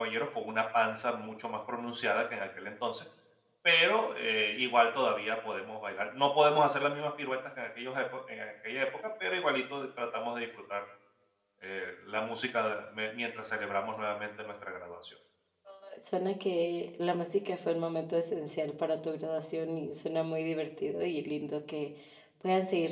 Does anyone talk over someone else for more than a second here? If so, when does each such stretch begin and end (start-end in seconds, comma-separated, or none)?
none